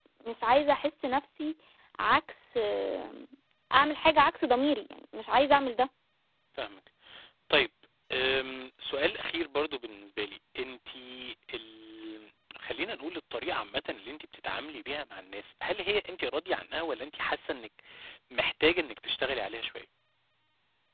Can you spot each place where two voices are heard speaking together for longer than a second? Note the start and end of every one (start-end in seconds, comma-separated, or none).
none